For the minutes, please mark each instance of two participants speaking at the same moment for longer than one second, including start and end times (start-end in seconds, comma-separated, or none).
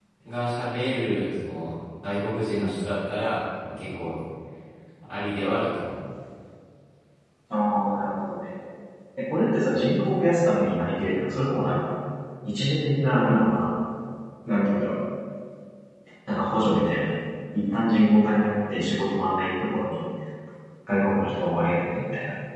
none